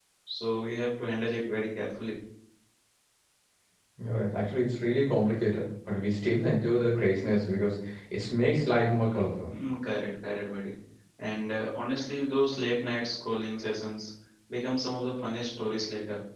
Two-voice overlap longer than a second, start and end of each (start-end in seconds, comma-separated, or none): none